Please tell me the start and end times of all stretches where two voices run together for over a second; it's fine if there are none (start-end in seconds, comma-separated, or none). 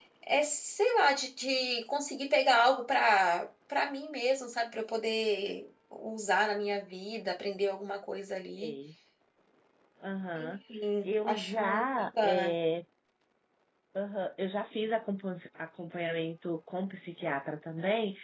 11.0-12.5